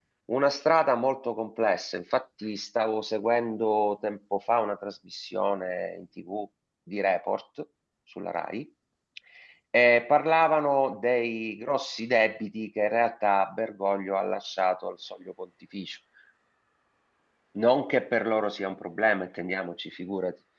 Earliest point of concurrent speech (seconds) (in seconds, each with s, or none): none